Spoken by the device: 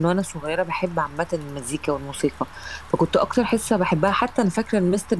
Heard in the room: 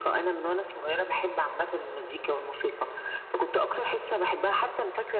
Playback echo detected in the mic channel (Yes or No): Yes